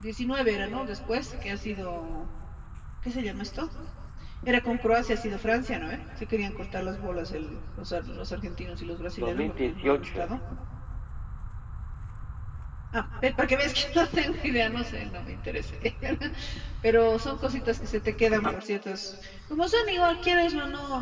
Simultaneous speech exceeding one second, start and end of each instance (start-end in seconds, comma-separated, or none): 9.1-10.4